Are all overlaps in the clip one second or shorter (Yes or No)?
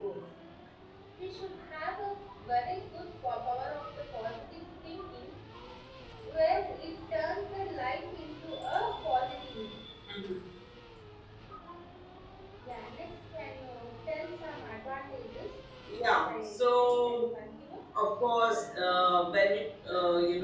No